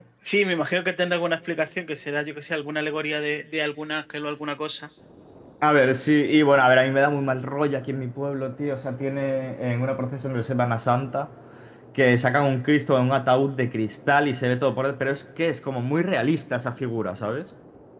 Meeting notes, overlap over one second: none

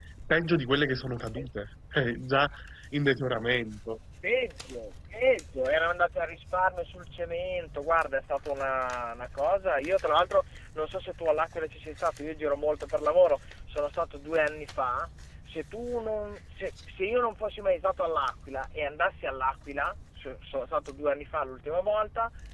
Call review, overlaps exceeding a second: none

